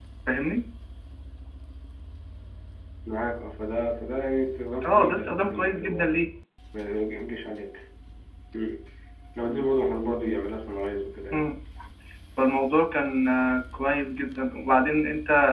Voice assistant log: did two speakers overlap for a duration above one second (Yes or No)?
Yes